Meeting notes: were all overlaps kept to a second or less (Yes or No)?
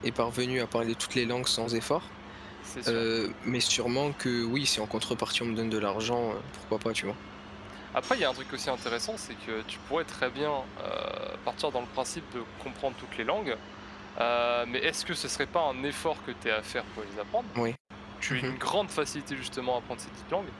Yes